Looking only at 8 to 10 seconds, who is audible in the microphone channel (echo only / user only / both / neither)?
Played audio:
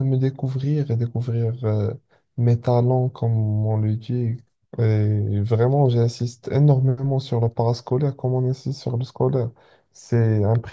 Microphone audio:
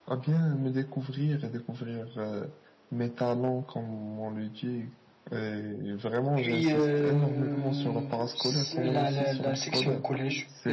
both